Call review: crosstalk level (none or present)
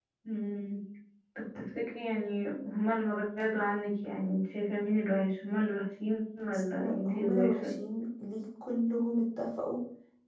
present